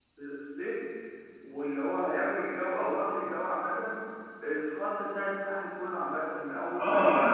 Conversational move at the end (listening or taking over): taking over